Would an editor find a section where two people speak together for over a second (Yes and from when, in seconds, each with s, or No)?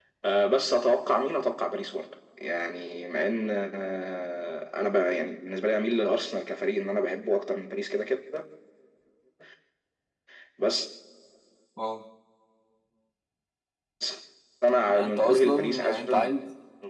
Yes, from 14.9 s